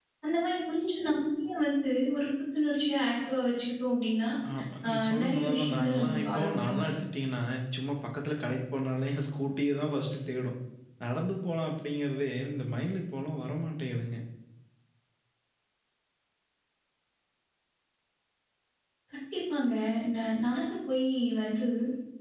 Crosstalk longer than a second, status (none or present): present